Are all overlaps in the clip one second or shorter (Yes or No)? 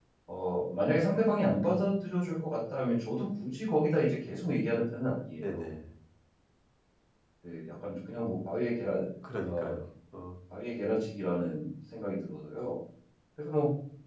Yes